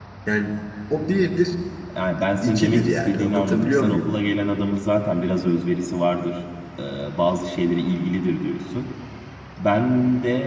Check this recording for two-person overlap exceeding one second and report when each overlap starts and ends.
2.4-4.1

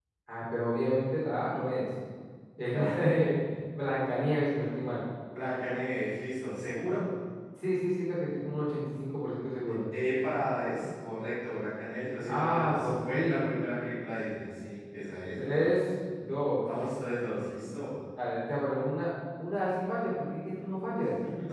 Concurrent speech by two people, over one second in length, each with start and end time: 12.3-13.5

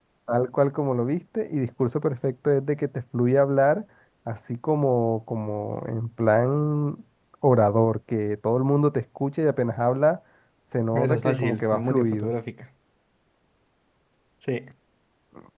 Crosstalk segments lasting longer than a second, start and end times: 10.9-12.3

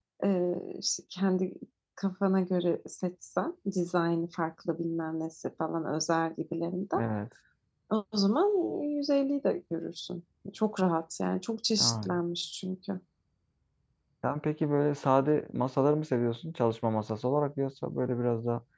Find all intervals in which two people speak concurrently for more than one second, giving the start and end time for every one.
none

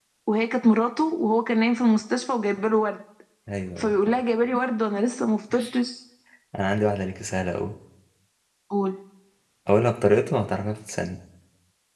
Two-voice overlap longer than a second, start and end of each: none

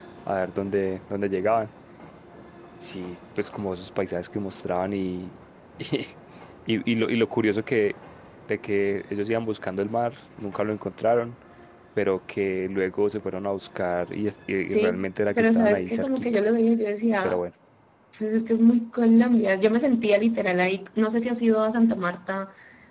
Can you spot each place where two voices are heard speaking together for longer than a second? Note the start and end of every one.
14.7-16.2

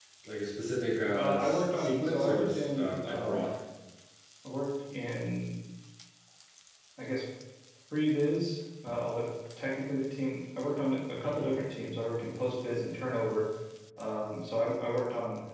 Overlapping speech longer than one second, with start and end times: 1.2-3.5

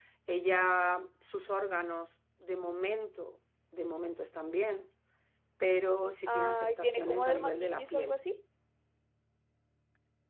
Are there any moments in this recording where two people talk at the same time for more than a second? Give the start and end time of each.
6.3-8.2

